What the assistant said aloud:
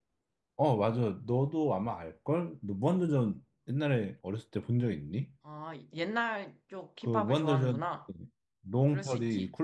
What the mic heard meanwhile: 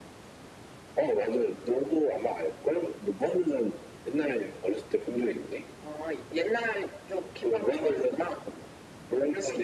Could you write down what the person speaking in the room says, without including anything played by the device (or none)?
none